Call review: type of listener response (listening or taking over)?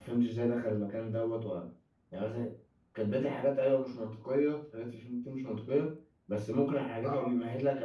listening